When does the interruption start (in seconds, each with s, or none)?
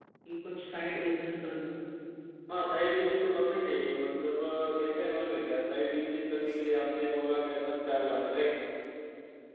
none